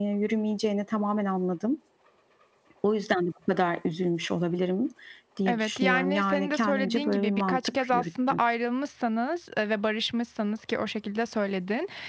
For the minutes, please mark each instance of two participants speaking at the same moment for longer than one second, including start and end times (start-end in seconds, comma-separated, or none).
5.5-8.4